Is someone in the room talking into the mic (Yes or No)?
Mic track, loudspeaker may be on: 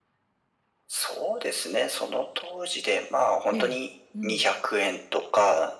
Yes